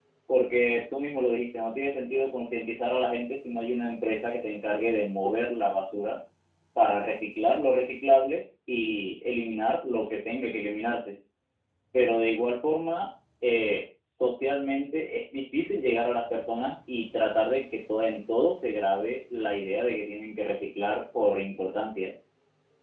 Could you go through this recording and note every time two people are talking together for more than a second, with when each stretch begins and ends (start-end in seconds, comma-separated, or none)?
none